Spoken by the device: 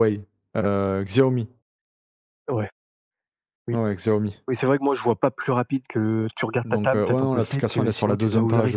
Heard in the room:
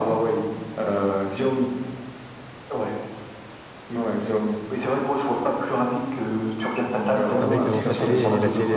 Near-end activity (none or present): present